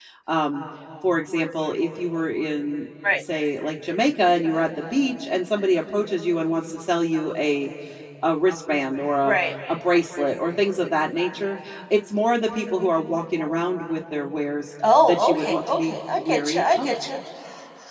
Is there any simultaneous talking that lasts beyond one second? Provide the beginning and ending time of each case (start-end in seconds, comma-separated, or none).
15.1-17.0